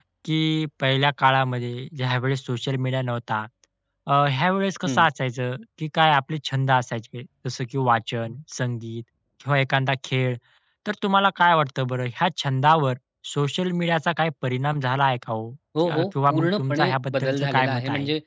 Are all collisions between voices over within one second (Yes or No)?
No